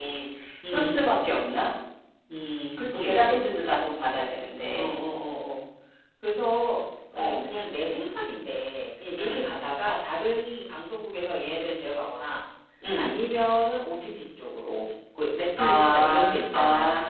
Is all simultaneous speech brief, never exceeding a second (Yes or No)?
No